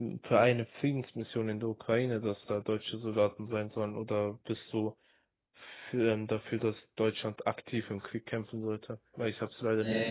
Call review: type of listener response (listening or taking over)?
taking over